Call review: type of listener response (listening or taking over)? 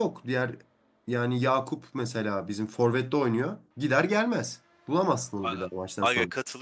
taking over